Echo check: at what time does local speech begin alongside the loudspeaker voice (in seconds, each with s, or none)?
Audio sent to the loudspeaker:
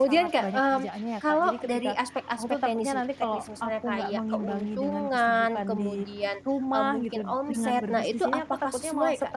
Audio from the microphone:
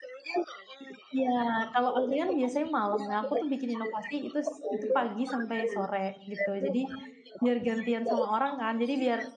1.2 s